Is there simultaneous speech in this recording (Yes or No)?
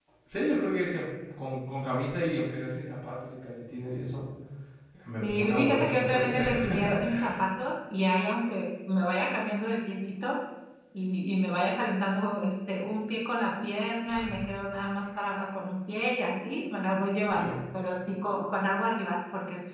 Yes